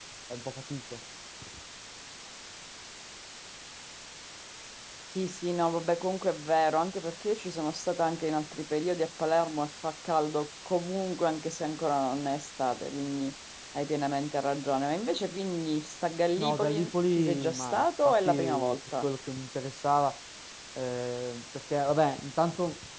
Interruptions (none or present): present